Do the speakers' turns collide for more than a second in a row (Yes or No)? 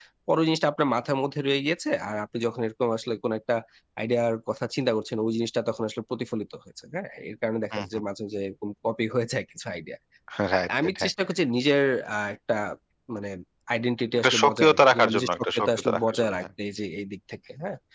Yes